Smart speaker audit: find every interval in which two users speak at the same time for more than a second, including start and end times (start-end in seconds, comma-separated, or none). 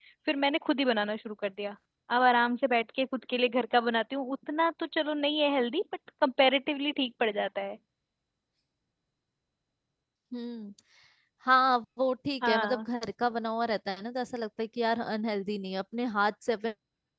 none